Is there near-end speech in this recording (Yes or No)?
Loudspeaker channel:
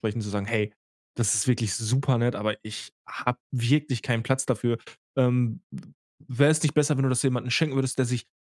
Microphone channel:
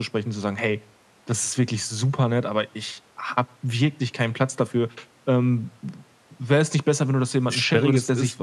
Yes